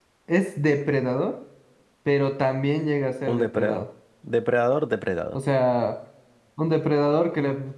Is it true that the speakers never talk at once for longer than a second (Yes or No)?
Yes